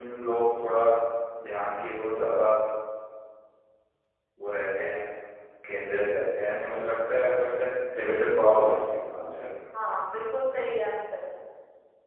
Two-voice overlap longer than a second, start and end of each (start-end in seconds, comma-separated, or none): none